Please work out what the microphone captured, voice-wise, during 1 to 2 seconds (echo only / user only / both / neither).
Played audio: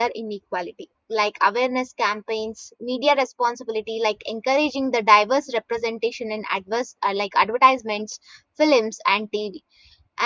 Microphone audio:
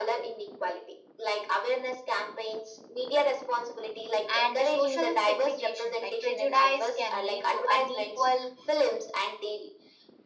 echo only